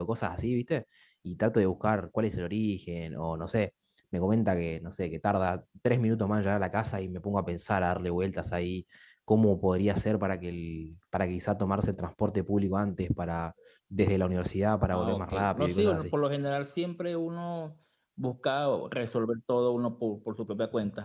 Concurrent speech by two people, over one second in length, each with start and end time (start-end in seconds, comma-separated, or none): 14.9-16.1